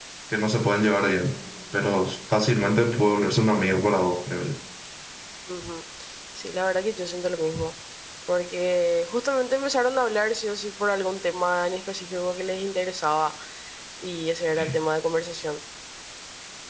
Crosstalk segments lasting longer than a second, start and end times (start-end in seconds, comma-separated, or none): none